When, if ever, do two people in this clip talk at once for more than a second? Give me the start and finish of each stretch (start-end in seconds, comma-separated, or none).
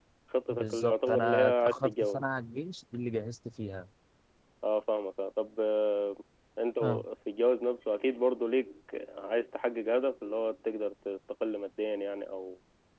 0.5-2.2